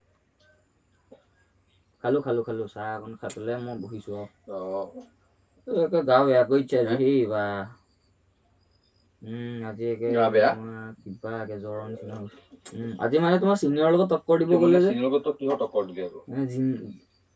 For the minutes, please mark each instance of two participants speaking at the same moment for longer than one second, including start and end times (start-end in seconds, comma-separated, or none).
none